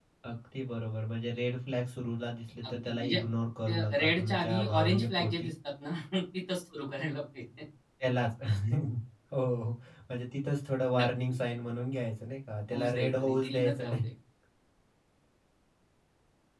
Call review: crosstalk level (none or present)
present